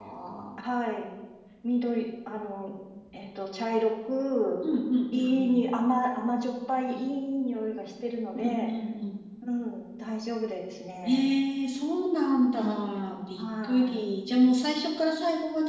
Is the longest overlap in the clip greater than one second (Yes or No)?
Yes